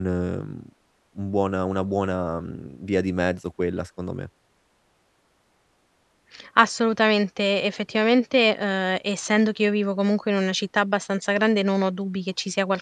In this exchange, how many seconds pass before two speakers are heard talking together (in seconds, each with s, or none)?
none